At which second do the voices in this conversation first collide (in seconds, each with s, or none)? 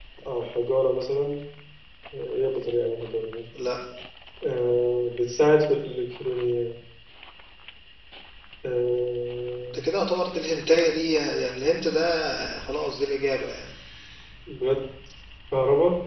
none